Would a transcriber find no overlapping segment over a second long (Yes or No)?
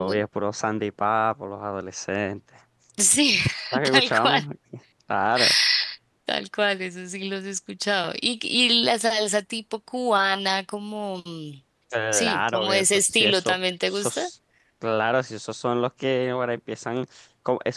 No